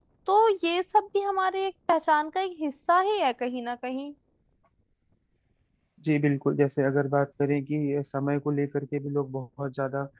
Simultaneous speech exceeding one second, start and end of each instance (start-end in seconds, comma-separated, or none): none